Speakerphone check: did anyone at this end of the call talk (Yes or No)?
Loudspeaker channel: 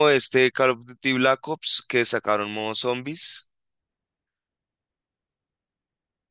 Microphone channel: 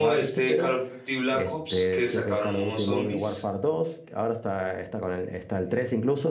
Yes